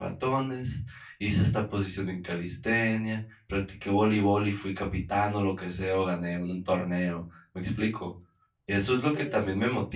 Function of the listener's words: listening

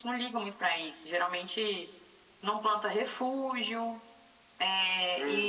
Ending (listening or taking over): taking over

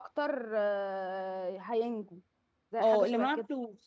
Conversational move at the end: taking over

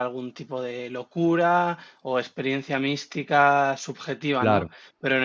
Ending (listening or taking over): listening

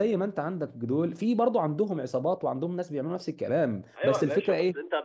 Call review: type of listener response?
taking over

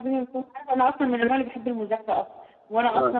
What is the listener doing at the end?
listening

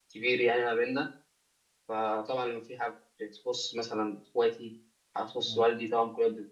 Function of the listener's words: listening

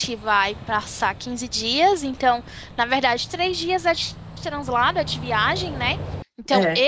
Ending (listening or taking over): listening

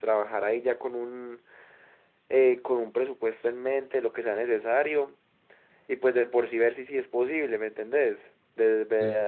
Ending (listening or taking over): listening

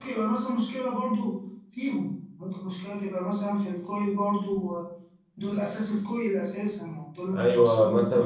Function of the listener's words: taking over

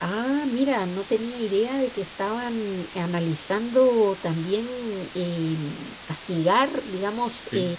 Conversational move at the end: listening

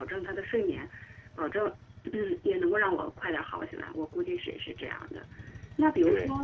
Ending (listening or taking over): listening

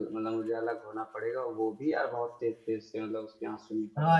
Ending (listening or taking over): taking over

